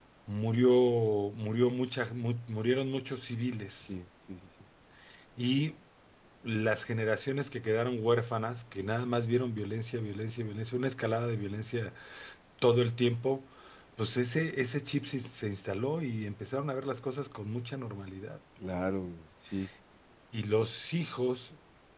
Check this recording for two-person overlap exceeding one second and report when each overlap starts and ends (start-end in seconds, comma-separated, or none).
none